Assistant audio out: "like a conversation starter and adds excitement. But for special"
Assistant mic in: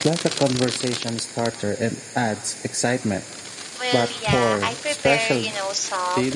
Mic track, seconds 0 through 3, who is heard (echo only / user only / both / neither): echo only